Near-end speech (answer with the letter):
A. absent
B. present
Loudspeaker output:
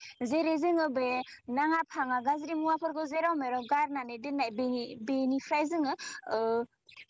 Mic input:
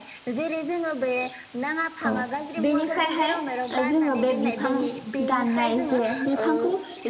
B